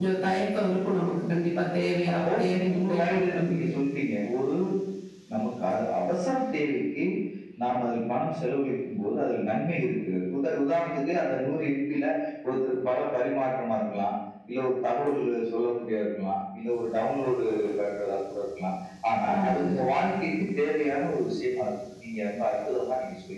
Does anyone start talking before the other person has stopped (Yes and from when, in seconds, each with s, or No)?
Yes, from 2.1 s